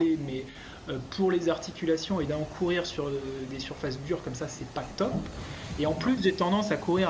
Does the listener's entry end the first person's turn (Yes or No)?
No